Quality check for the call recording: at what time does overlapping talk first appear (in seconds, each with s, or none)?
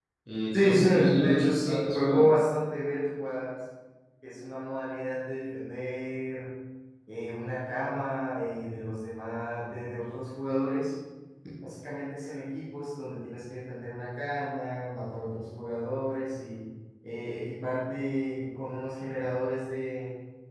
0.5 s